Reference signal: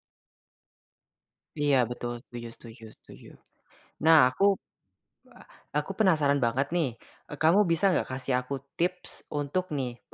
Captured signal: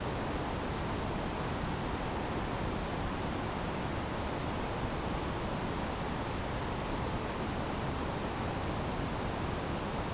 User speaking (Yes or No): No